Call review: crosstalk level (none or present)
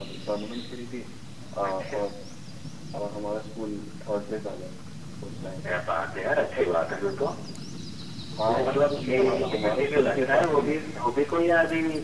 present